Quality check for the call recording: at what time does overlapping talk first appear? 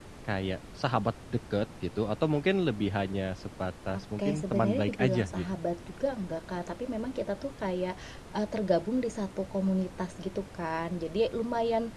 4 s

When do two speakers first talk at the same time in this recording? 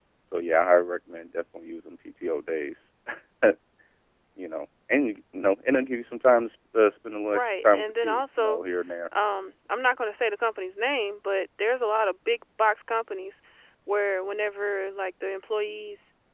7 s

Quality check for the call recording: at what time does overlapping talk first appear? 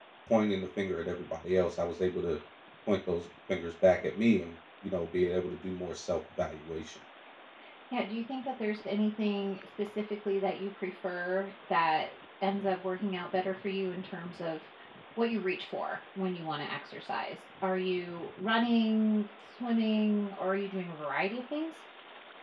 none

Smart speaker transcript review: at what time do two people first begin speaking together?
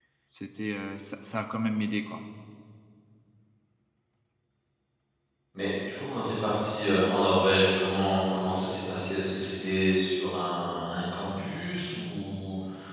none

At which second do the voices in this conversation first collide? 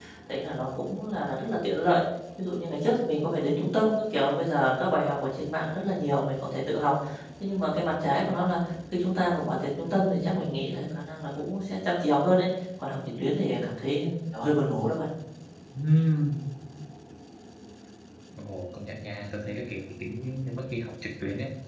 none

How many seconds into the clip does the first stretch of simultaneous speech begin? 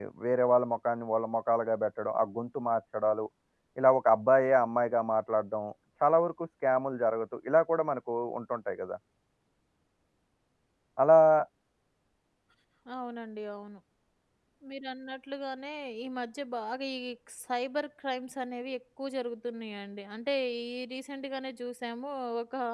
none

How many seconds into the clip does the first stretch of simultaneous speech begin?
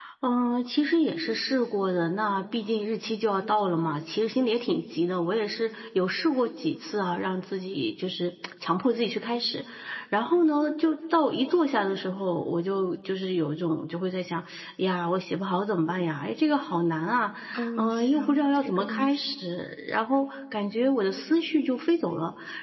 18 s

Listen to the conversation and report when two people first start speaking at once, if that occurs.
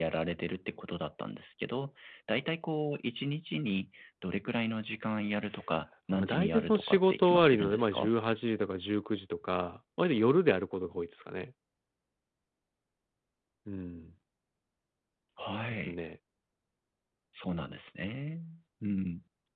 6 s

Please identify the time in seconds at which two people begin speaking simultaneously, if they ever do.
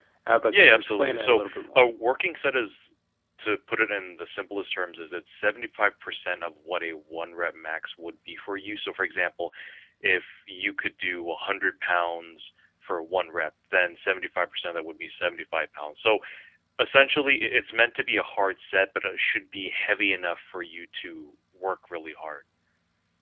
1 s

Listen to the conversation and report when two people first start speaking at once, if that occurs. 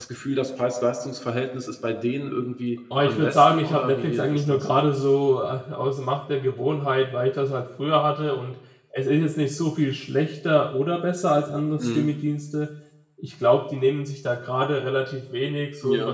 3 s

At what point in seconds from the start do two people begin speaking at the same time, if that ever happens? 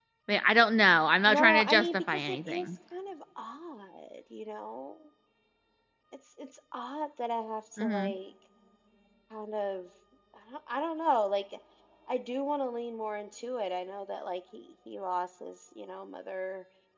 1 s

